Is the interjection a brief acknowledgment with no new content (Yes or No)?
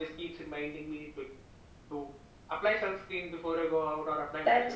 No